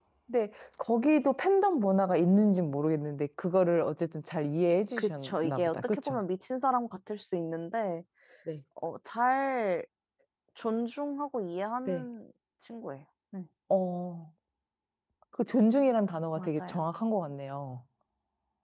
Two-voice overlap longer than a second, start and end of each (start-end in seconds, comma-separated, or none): 5.0-6.2